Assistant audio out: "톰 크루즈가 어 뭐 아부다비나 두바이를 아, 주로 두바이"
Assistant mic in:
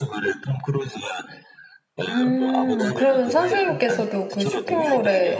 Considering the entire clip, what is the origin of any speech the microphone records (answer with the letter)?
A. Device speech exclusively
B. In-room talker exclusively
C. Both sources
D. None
C